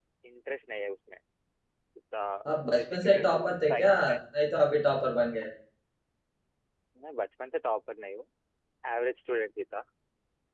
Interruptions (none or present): present